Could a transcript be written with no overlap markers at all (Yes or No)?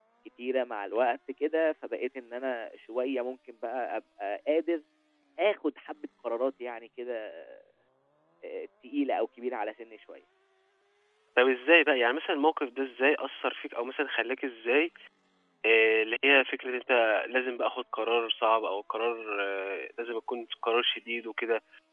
Yes